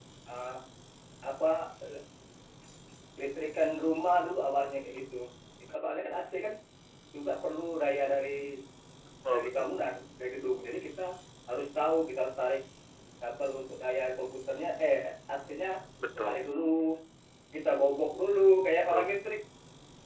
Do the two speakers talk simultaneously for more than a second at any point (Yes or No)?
No